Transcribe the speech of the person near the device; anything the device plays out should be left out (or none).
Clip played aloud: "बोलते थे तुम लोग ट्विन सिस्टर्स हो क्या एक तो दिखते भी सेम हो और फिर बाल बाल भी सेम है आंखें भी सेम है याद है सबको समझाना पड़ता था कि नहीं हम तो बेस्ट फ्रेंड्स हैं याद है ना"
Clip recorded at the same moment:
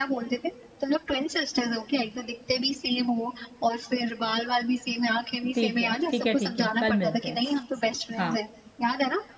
ठीक है ठीक है ठीक है कल मिलते हैं हाँ